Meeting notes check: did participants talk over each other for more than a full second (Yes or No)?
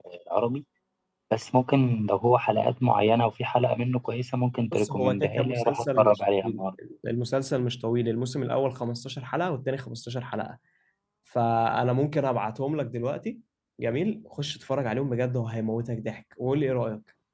Yes